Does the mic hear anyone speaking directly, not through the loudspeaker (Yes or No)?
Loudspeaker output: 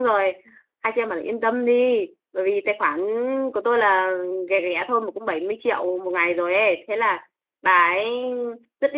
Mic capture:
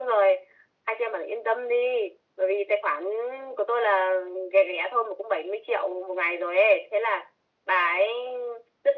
No